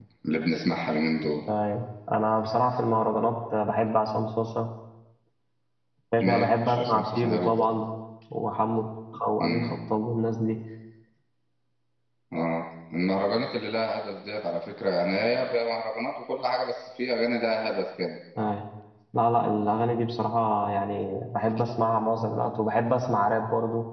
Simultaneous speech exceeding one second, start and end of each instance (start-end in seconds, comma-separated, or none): 6.2-7.5